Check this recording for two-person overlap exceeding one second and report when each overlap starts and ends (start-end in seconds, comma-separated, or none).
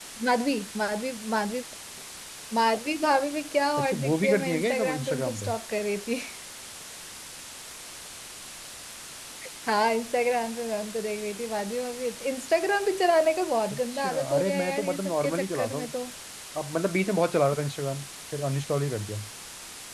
3.8-5.5, 13.7-15.9